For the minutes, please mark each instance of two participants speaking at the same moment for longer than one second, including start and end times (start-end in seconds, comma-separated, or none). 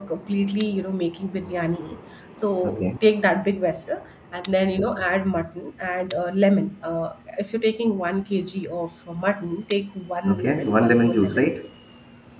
10.3-11.5